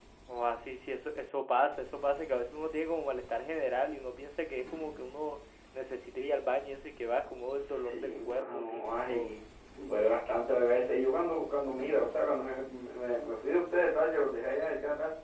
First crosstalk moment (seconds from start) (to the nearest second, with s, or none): 8 s